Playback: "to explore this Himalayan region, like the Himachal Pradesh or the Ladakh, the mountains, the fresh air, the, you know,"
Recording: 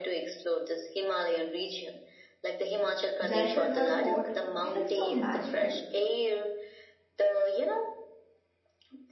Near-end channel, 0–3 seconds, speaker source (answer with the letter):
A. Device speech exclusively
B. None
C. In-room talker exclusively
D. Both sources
A